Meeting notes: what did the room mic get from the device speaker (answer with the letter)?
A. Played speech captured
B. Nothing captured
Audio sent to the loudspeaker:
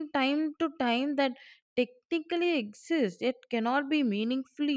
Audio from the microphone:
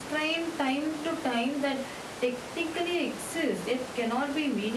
A